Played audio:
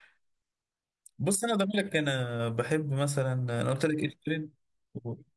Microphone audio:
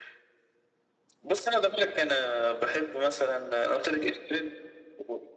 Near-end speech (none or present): none